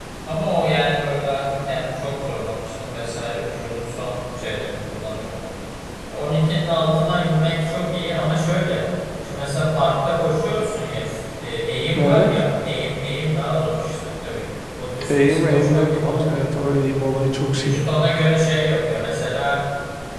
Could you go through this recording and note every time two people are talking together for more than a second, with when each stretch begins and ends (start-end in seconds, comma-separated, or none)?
15.1-16.5